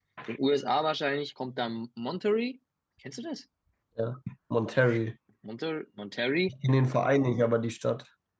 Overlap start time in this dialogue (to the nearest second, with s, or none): none